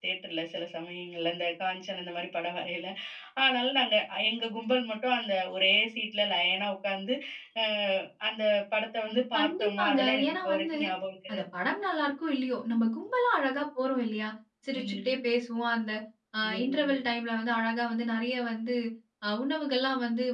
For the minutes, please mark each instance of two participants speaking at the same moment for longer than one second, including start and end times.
9.4-10.8

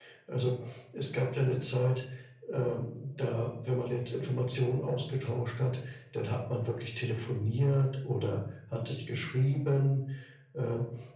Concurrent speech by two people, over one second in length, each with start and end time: none

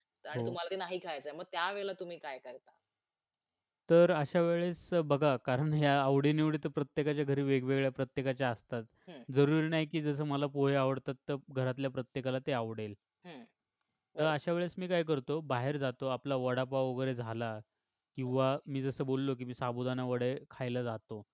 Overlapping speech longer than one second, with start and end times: none

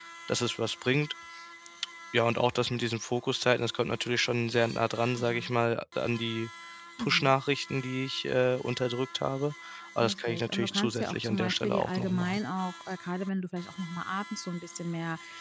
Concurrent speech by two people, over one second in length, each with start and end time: 10.0-12.4

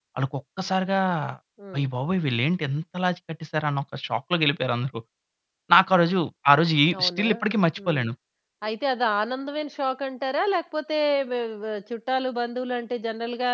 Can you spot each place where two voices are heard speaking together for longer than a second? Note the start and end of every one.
none

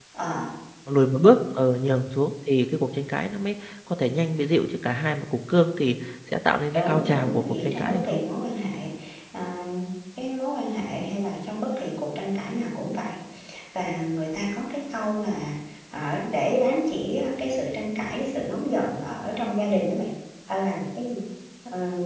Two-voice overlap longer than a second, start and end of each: 6.7-8.2

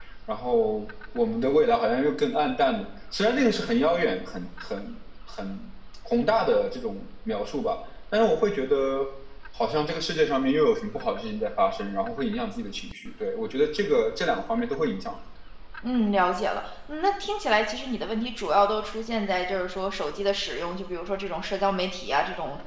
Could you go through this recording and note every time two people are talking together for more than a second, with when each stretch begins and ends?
none

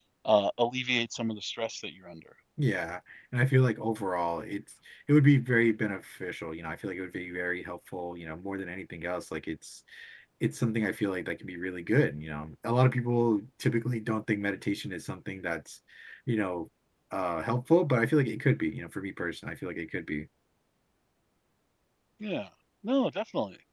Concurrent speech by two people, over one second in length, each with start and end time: none

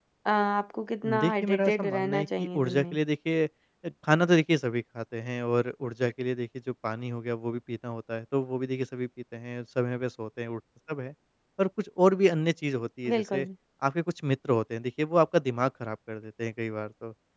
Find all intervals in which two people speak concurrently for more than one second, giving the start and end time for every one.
1.2-2.9

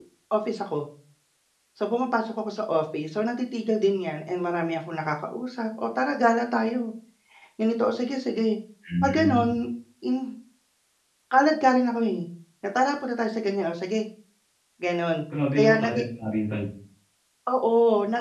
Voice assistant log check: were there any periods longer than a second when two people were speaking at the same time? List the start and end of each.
none

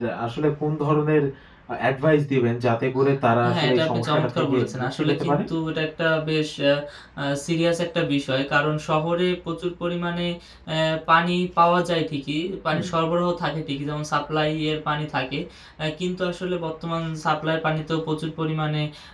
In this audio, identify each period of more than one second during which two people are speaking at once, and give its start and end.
3.5-5.4

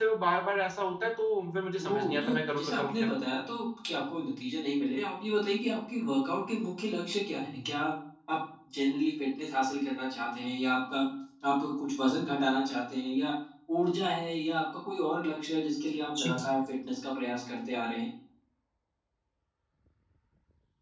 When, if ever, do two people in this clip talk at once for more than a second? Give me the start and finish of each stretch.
1.8-3.1

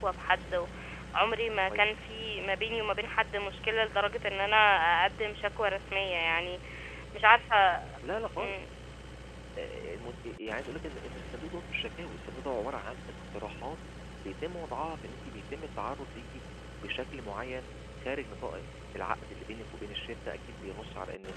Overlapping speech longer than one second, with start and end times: none

